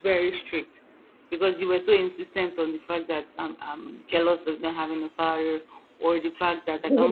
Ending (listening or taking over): listening